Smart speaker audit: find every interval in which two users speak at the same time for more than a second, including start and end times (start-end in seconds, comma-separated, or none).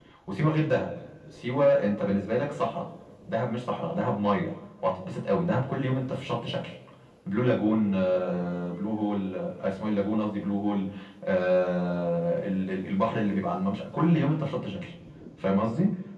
none